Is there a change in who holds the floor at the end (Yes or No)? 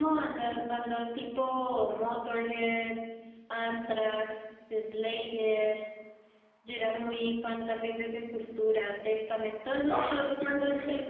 No